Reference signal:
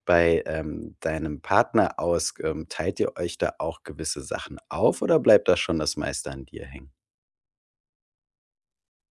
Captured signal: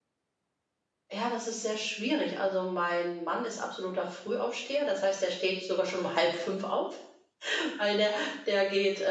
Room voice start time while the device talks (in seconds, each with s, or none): 1.1 s